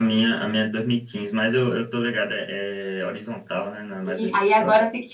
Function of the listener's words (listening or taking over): taking over